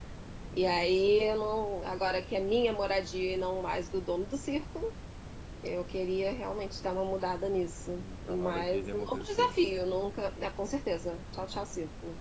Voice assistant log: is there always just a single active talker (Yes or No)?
No